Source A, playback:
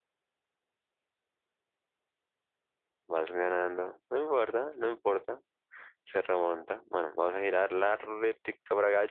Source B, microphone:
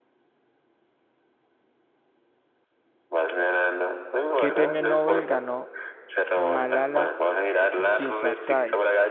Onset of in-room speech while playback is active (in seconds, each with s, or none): 4.3 s